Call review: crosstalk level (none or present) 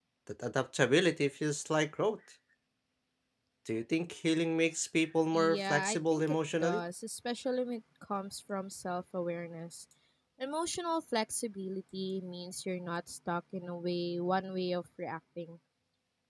present